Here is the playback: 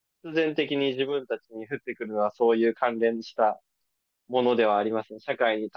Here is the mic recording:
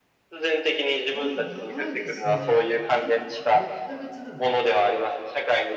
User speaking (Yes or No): Yes